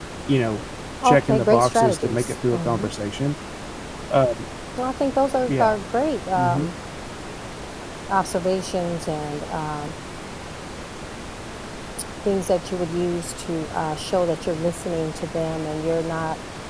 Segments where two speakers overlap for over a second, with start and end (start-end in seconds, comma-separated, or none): 1.0-2.9